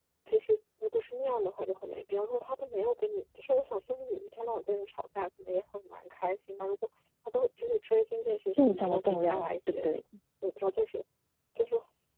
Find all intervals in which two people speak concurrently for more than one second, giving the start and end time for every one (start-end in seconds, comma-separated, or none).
8.5-9.9